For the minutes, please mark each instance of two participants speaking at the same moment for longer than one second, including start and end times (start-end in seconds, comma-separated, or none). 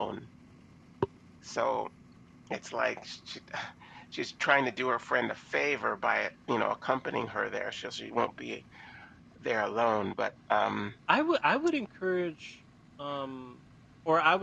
none